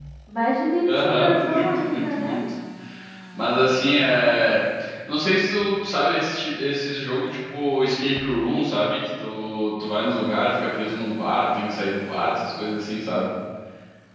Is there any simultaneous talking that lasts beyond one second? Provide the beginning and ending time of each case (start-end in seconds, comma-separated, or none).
1.0-2.4